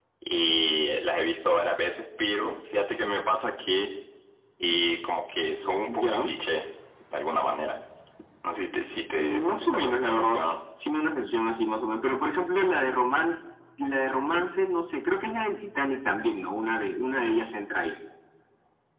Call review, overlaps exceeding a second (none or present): present